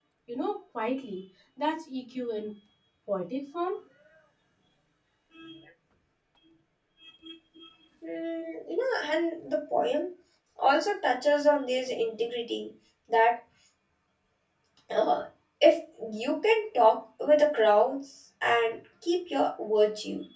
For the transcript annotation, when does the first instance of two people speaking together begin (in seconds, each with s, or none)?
none